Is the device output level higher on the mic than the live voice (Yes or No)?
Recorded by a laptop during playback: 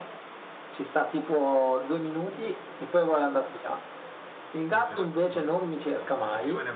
Yes